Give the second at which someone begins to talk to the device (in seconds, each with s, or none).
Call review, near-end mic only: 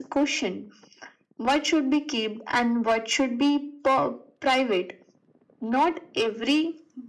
none